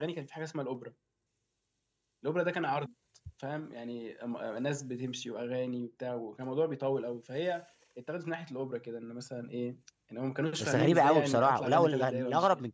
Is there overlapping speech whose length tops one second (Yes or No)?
Yes